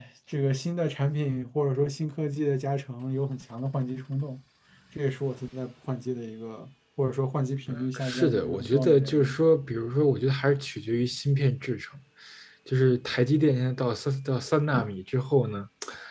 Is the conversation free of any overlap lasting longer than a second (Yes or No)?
No